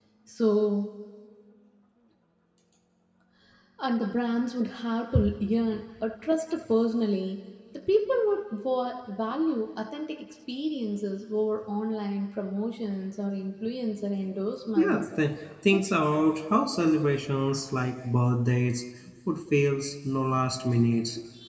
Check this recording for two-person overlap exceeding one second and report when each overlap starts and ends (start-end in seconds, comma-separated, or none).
none